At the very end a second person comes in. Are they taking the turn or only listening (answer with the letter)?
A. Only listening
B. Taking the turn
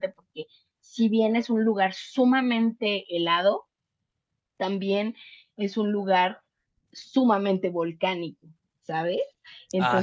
B